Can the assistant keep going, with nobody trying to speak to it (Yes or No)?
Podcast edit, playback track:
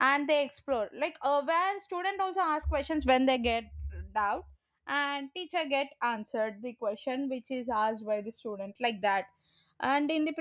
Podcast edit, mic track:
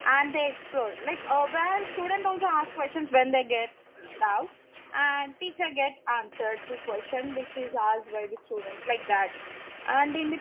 Yes